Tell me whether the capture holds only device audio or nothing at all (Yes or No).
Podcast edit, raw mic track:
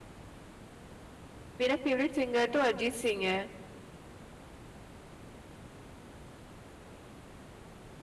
No